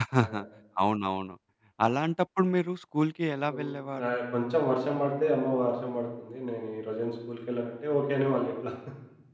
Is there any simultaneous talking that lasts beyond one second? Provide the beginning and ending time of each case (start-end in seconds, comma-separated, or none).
none